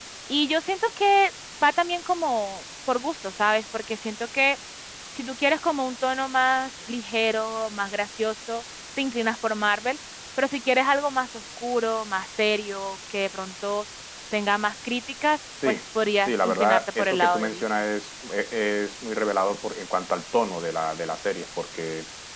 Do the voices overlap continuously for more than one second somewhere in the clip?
Yes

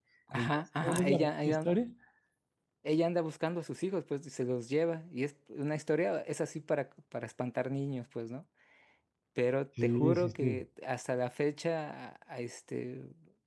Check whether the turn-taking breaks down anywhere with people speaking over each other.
Yes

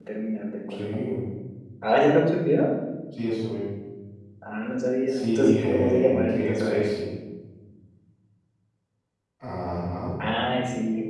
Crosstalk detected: Yes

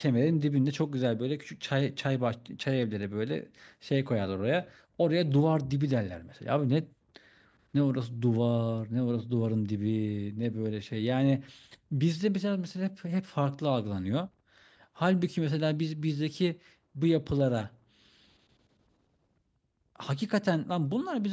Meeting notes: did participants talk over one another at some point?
No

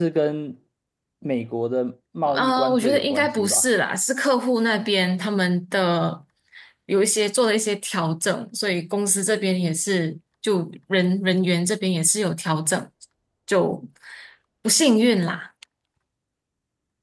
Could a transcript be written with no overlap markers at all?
No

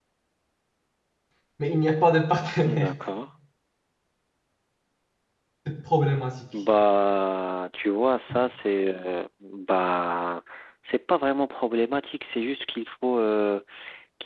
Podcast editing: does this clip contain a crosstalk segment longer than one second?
No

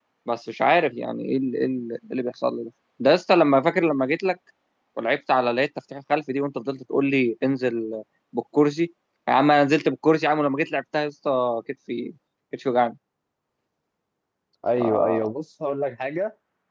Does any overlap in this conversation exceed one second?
No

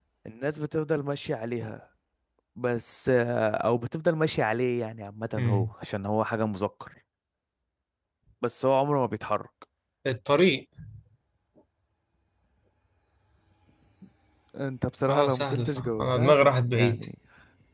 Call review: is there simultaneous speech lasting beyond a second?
Yes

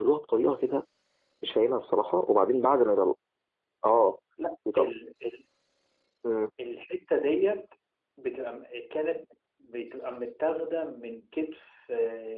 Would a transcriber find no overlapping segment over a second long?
Yes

